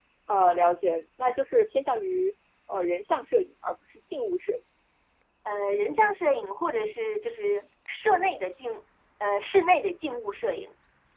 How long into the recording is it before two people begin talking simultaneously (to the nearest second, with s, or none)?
none